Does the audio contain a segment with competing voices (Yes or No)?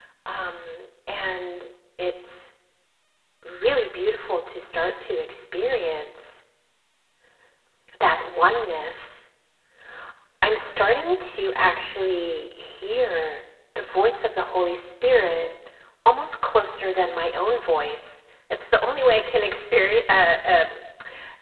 No